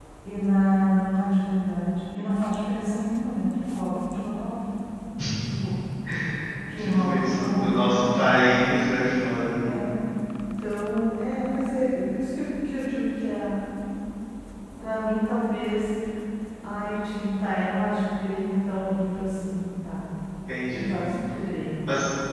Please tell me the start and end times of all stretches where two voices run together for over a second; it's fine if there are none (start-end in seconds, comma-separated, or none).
6.8-8.4